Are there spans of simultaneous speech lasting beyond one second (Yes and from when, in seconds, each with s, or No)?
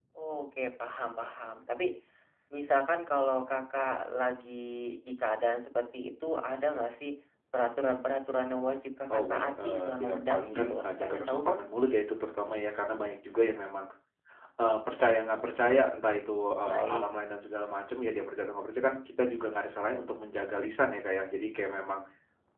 Yes, from 9.1 s